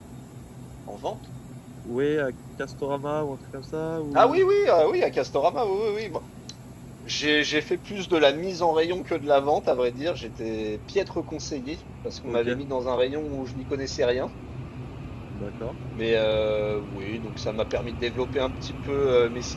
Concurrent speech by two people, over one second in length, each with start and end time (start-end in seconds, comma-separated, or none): none